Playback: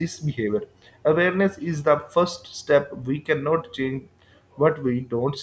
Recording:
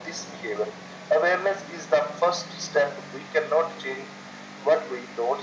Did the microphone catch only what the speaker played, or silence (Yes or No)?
Yes